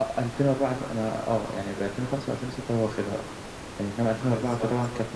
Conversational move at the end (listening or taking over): listening